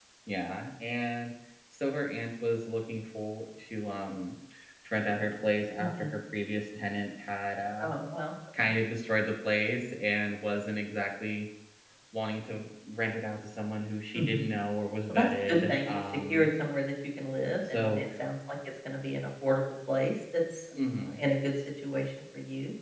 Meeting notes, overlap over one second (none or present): present